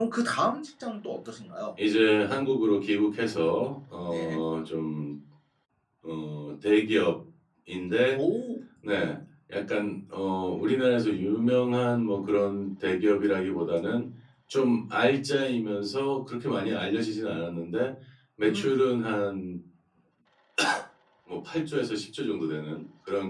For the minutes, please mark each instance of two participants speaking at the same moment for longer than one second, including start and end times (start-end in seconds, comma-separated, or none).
none